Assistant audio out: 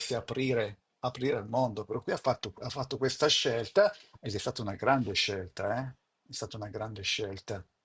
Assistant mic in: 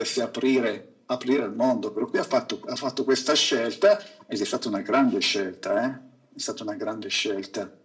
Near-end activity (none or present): none